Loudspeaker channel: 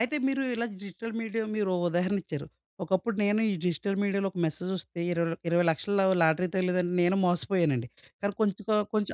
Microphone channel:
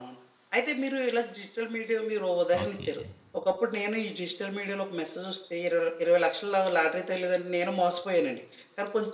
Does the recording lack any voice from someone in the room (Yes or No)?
No